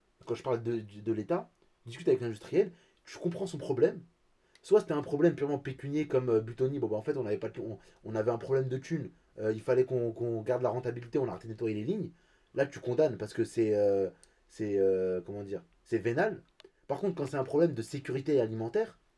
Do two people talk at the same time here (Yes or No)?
No